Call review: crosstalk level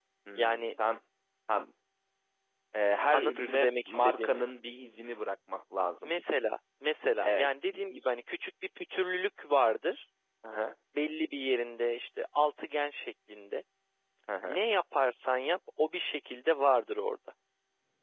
present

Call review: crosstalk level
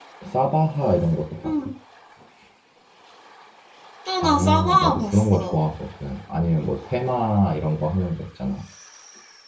present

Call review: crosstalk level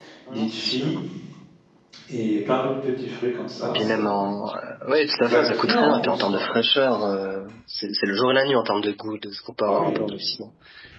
present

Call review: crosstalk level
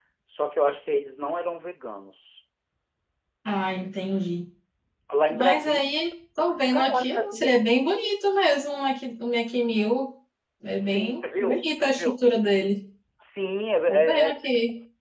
present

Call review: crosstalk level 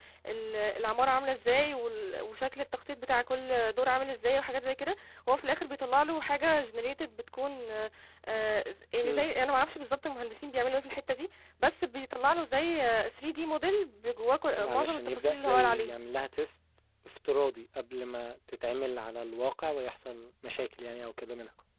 present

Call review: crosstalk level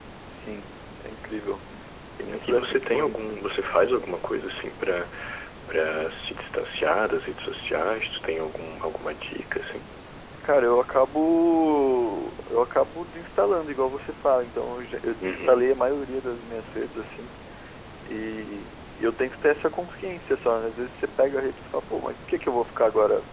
present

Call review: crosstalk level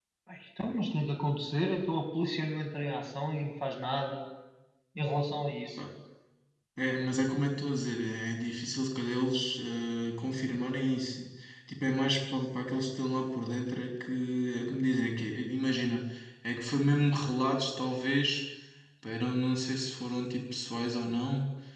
none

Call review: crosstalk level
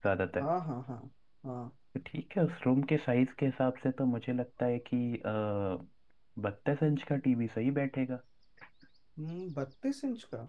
none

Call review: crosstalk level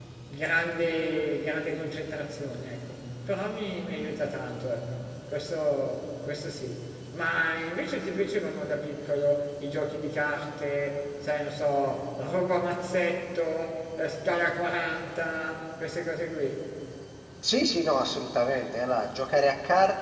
none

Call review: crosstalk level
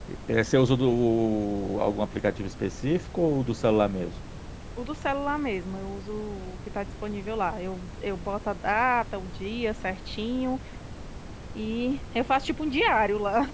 none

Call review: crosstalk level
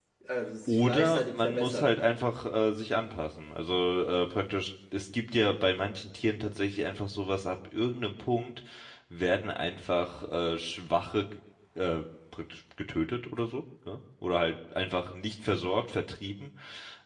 present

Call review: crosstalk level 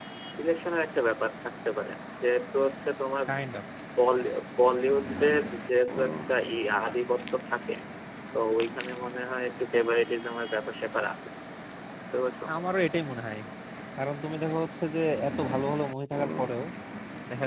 none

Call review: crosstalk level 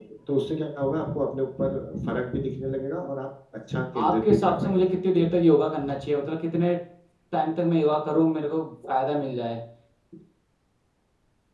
present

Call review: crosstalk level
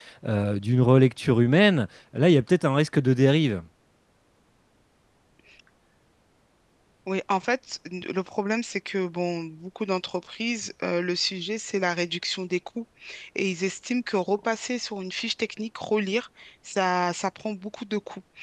none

